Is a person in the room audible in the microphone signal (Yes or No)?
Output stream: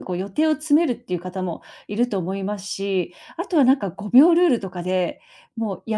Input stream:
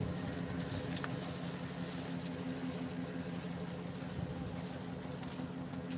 No